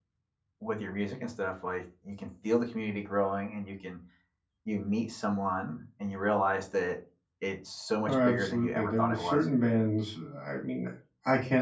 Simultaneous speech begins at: 8.1 s

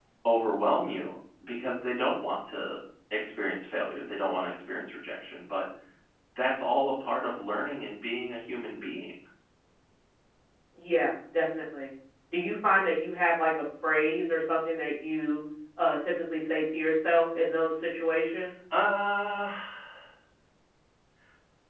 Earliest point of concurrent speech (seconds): none

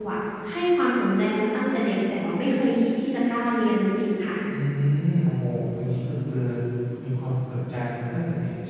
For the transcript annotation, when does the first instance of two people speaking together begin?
none

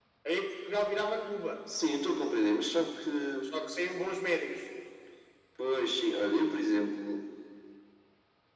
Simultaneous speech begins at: none

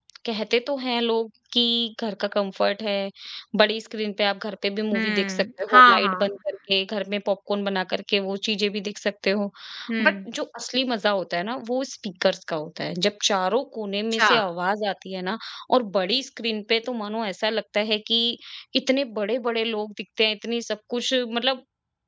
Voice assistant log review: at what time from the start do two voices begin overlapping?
4.9 s

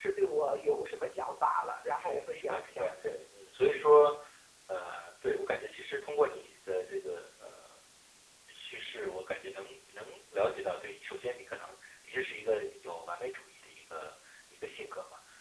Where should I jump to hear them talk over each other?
2.0 s

